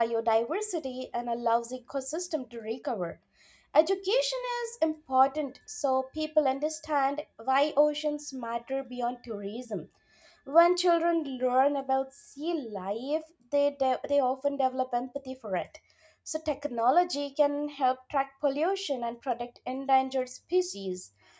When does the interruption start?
none

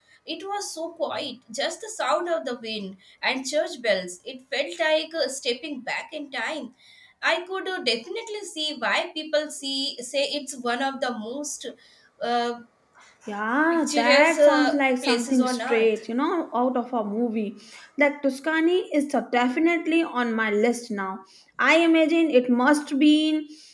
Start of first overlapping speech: 14 s

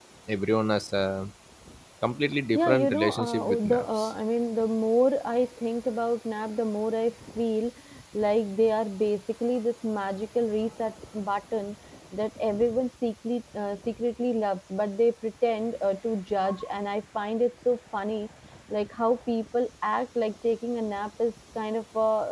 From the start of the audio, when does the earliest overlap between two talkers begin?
3 s

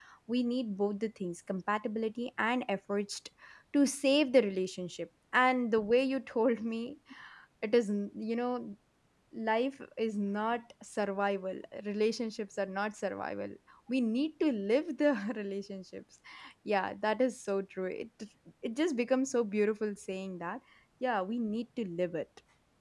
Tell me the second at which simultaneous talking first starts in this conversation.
none

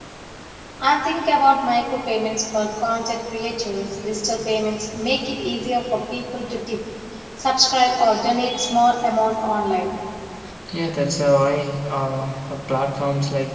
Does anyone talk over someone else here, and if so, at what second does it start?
none

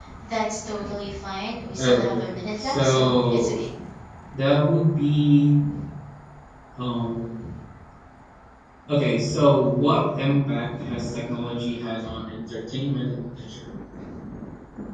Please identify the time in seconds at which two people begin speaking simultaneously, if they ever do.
2 s

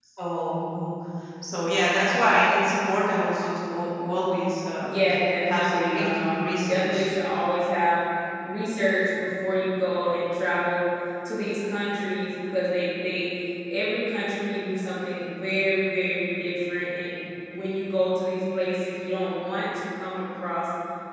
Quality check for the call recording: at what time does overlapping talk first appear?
5 s

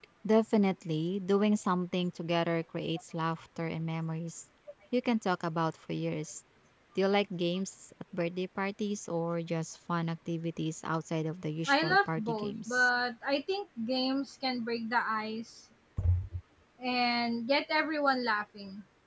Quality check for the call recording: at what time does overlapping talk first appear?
12 s

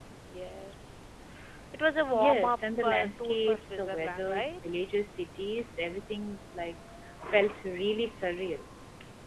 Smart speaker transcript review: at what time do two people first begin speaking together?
2 s

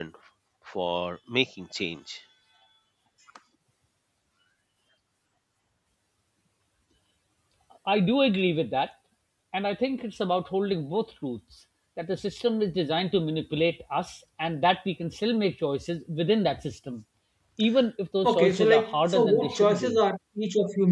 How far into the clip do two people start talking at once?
18 s

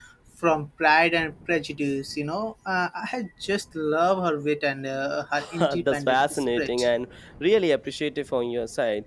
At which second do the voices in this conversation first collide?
6 s

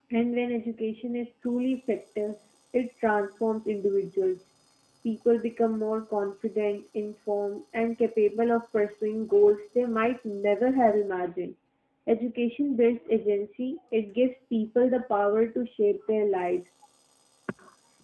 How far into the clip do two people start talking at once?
none

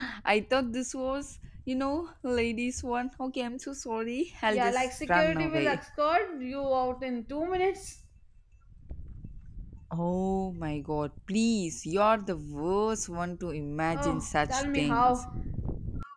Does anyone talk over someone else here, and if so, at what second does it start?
4 s

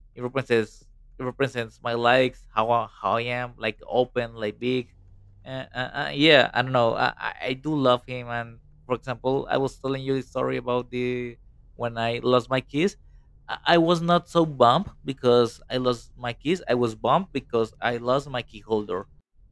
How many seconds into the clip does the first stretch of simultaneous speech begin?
none

